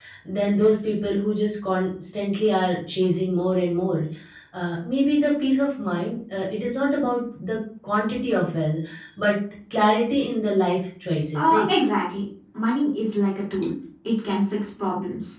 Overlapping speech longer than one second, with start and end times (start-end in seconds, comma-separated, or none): none